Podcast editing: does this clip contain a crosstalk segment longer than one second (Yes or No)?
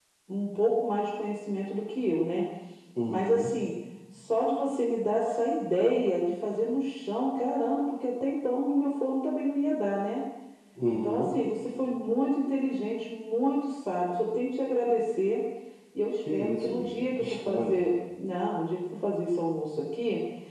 Yes